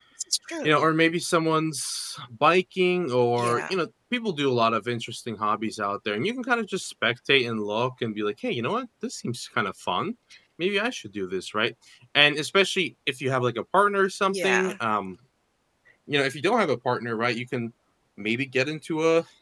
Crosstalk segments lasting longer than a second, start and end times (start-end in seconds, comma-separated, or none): none